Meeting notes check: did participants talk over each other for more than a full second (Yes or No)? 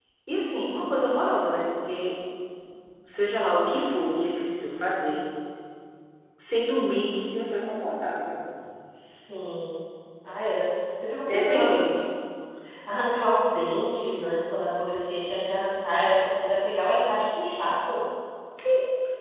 No